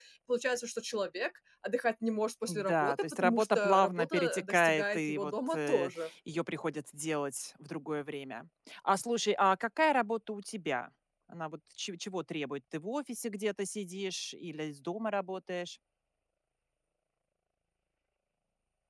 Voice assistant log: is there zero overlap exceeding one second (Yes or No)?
No